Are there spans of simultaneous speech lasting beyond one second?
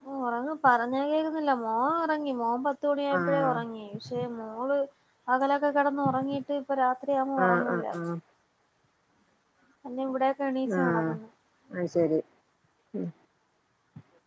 No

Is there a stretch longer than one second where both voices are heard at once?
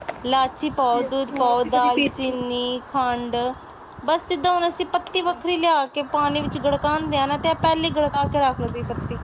Yes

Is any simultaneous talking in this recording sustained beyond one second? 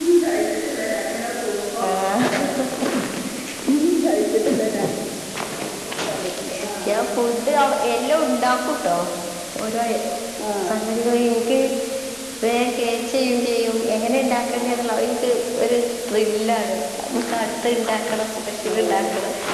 No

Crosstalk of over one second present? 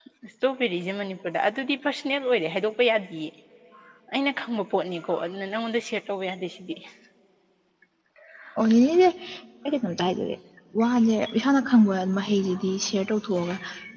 No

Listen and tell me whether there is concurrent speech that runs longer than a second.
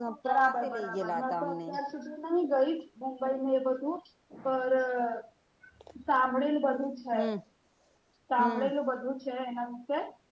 Yes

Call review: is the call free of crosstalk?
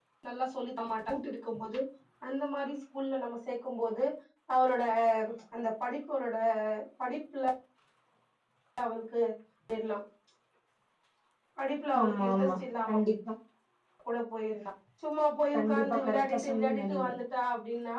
No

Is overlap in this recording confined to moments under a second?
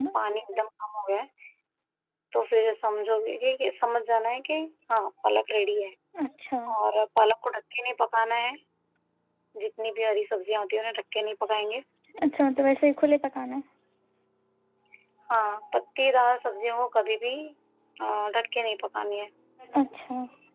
Yes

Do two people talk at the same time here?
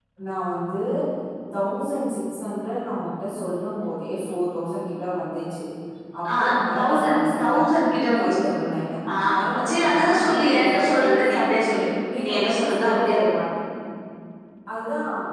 Yes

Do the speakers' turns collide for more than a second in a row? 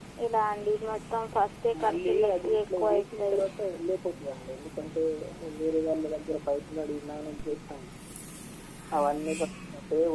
Yes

